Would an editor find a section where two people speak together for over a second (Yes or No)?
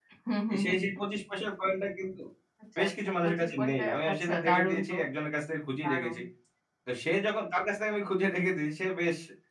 Yes